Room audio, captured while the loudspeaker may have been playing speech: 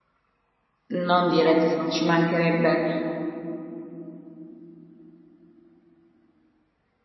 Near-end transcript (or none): non di razzismo, ci mancherebbe,